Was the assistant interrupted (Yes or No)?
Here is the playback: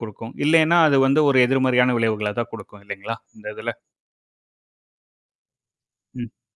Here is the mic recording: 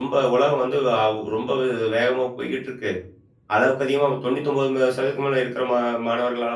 Yes